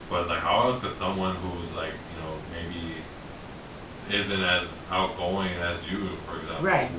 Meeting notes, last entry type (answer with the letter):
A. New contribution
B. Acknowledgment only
A